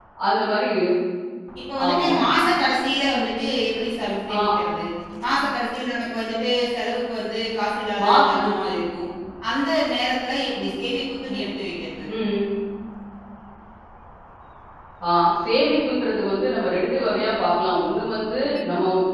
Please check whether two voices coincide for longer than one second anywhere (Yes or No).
No